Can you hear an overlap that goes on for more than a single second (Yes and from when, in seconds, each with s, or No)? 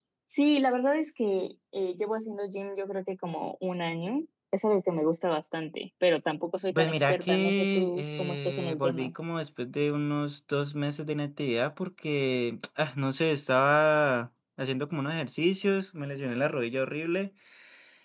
Yes, from 6.7 s